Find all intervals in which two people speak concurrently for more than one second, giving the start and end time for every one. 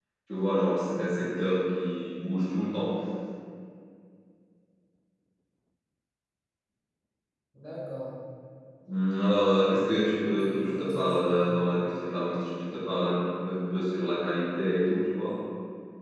10.2-11.6

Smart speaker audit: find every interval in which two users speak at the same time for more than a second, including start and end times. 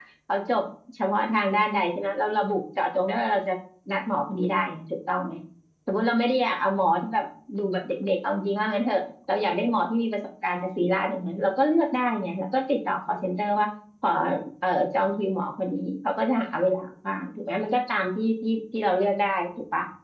none

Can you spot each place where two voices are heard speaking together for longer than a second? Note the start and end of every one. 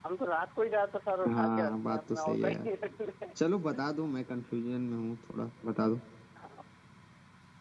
1.3-2.7

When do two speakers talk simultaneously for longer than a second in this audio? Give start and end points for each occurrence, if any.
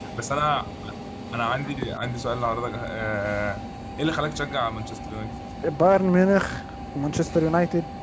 none

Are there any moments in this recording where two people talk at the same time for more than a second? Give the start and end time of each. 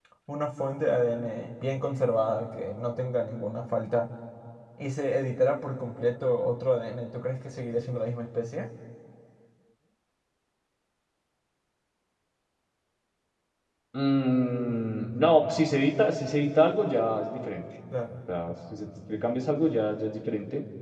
none

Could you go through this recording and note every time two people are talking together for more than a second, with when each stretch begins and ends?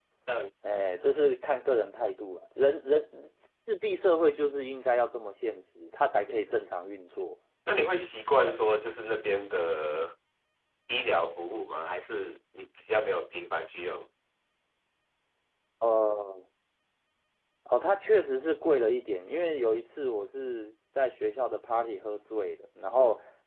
none

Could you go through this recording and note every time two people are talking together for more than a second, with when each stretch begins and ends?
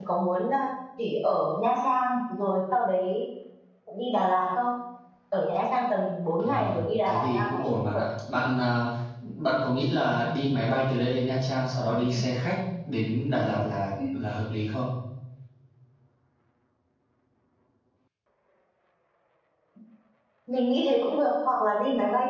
6.4-8.0

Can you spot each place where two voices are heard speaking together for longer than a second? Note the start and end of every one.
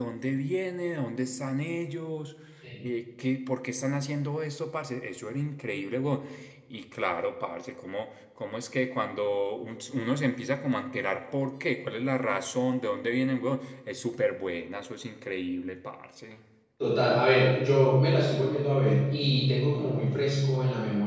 none

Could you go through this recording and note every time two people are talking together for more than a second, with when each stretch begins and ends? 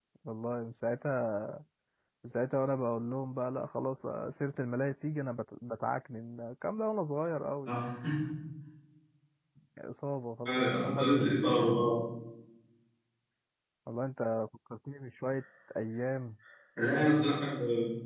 10.5-11.8

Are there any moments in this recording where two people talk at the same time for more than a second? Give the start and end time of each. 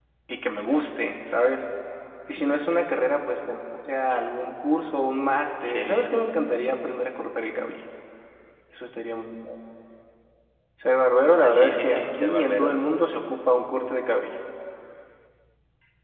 11.4-12.8

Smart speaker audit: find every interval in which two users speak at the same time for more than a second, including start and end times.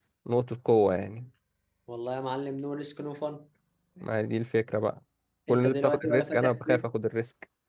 5.5-6.8

